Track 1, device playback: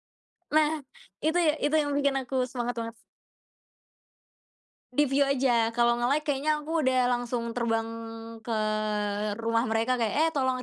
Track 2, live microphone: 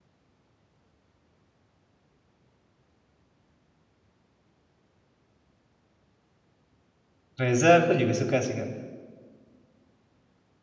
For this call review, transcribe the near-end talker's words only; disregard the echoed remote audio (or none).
Reza, aku juga suka sih Kak.